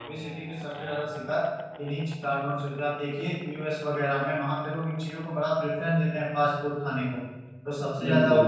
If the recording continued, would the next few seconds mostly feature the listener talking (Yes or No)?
No